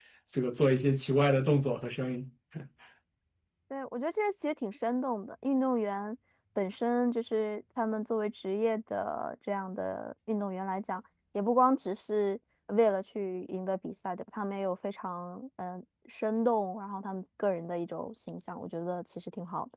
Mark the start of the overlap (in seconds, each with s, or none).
none